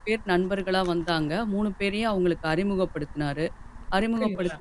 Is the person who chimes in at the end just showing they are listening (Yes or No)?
Yes